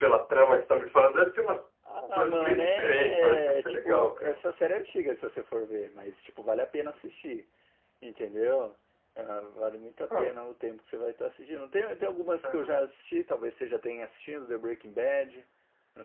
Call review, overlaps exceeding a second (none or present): present